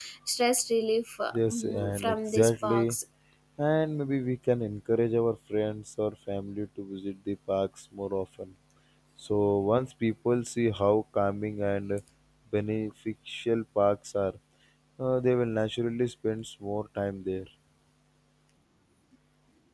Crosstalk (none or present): present